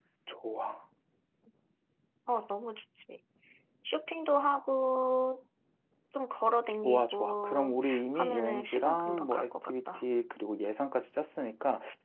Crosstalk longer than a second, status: present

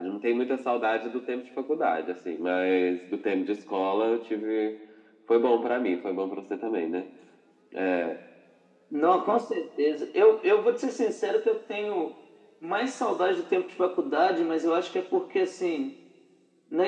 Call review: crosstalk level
none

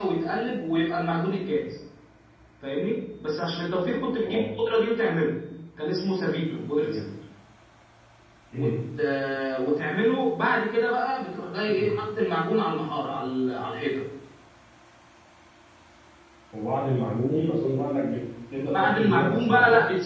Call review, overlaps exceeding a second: present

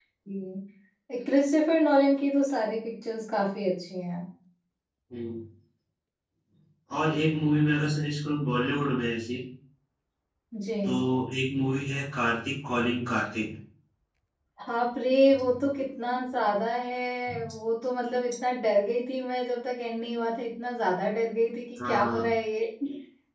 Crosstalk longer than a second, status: none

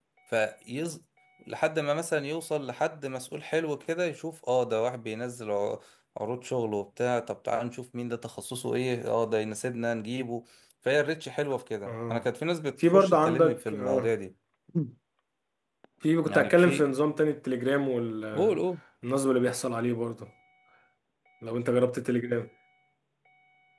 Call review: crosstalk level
present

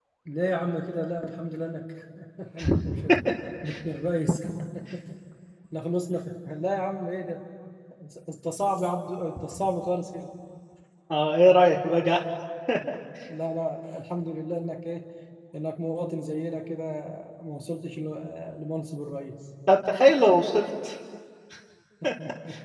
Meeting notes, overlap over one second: none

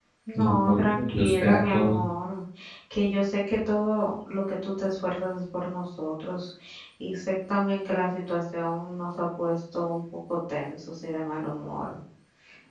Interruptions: present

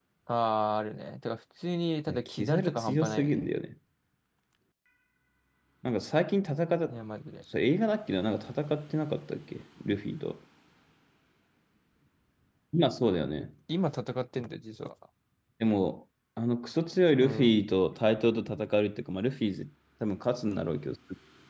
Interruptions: present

